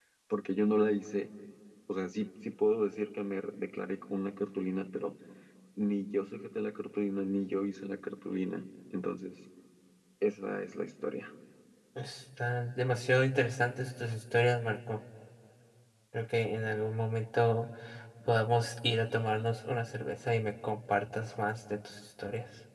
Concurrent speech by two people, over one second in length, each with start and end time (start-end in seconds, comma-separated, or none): none